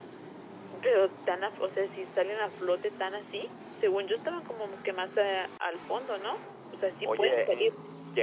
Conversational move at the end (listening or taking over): taking over